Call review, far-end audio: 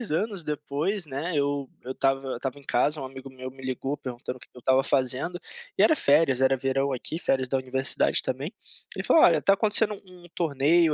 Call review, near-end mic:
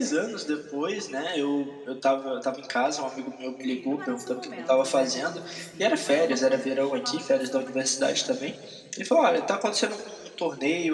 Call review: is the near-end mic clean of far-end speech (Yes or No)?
No